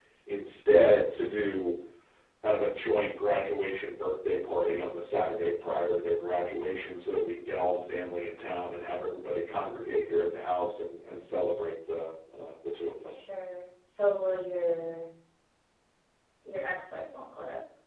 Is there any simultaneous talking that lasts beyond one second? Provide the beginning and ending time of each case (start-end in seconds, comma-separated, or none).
none